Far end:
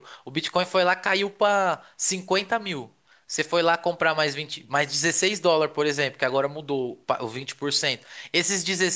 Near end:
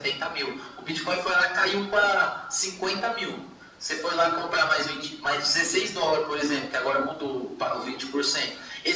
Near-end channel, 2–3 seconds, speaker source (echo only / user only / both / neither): echo only